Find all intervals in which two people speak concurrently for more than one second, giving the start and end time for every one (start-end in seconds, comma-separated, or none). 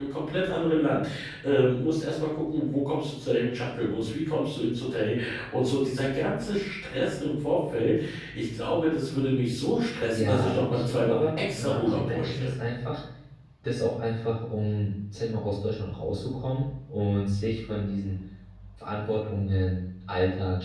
10.1-12.5